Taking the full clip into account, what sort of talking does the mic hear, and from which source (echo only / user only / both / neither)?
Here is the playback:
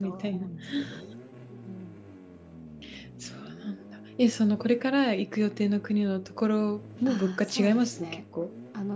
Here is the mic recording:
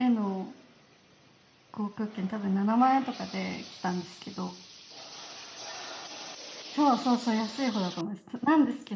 user only